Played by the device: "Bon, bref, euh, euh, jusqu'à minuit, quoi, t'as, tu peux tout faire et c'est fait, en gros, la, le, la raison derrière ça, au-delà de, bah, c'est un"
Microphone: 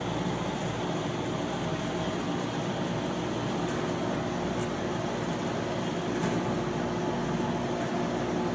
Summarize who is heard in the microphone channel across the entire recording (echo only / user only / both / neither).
neither